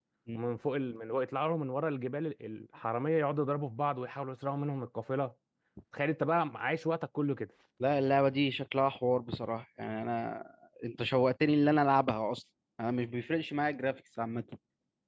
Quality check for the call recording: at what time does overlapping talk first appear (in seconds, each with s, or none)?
none